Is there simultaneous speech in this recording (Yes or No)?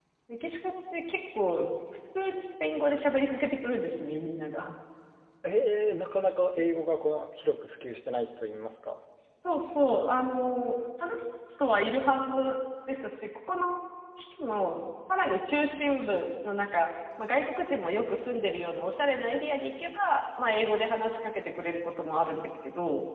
No